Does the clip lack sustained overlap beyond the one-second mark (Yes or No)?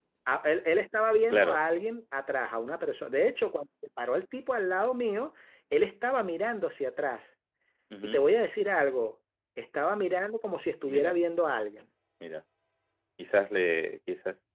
Yes